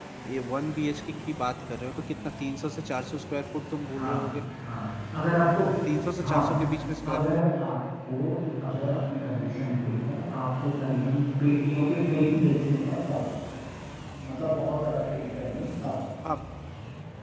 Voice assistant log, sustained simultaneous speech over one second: none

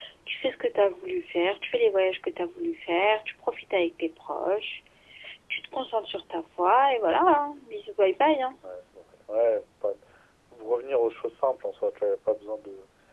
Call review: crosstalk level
none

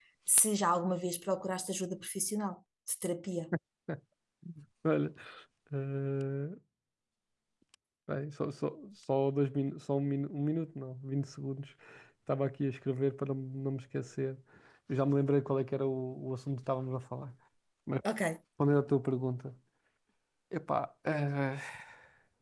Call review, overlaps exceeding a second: none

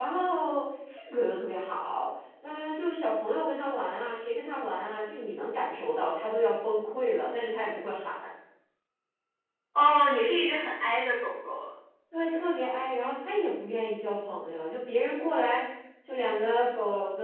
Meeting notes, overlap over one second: none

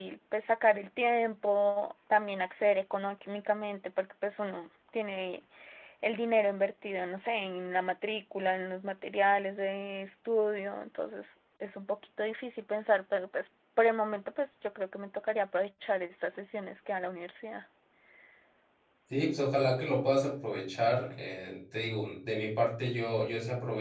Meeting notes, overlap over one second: none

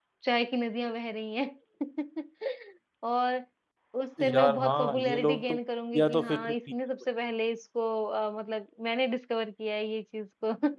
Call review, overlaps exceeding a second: present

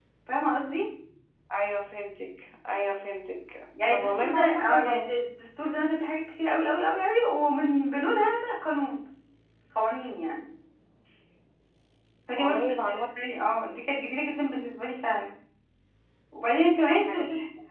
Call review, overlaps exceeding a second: present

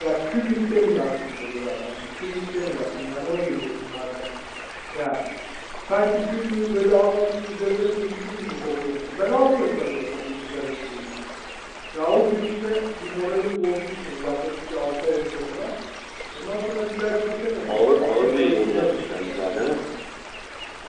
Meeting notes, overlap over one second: present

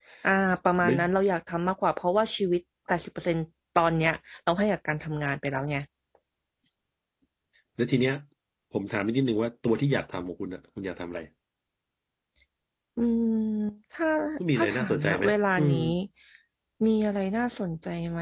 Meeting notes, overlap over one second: present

